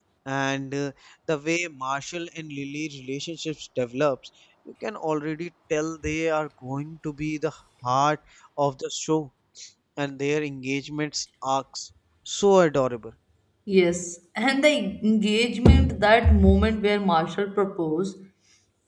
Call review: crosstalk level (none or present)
none